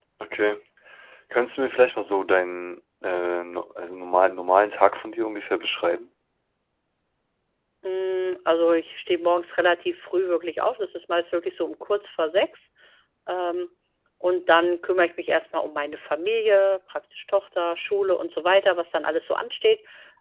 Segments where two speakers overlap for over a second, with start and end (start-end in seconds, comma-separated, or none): none